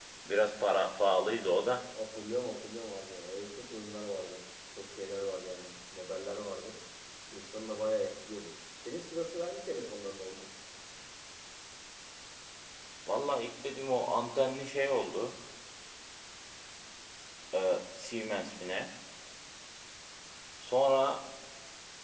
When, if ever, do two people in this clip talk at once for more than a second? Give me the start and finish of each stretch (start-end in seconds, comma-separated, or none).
none